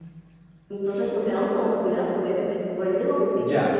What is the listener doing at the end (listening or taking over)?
taking over